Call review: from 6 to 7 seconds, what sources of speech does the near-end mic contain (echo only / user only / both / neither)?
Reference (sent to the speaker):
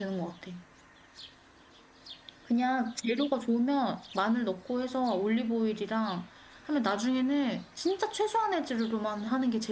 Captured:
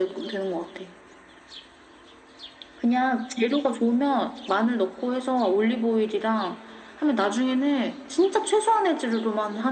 echo only